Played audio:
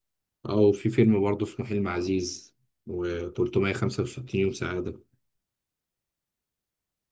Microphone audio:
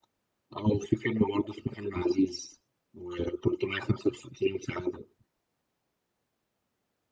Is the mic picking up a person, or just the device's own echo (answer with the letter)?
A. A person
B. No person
B